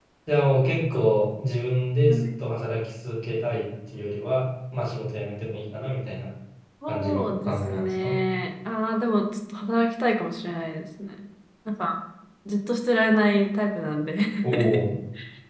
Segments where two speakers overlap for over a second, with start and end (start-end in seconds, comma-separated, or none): 6.9-8.2